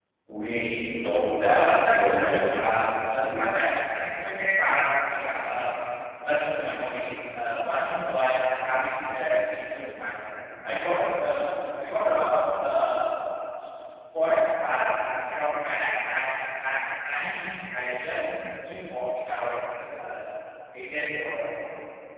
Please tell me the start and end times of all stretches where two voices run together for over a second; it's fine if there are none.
1.4-2.6

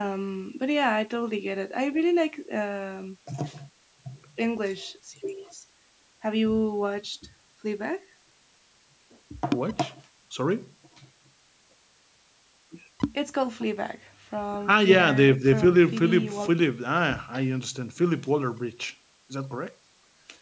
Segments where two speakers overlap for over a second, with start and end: 14.7-16.5

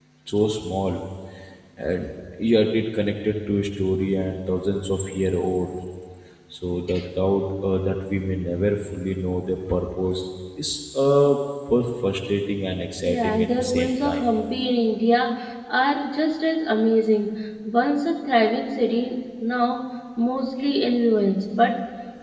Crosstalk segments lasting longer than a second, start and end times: 13.1-14.3

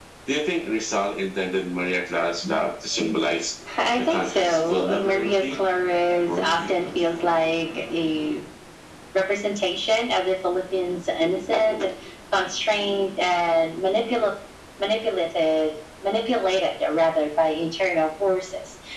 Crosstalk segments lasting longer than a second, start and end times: 4.0-5.6

